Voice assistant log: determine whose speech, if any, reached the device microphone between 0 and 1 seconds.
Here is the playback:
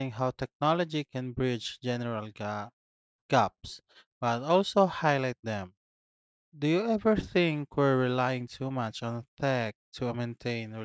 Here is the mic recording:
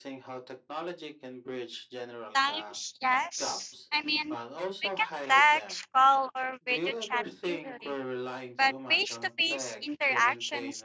echo only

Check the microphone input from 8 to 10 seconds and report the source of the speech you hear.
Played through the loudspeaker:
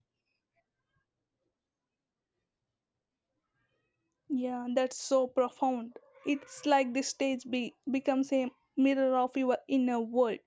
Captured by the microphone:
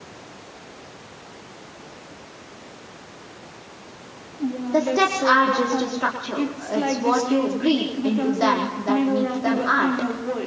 both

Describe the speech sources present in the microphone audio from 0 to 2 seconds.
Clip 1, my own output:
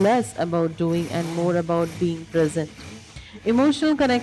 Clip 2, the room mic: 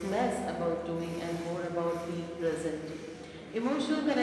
echo only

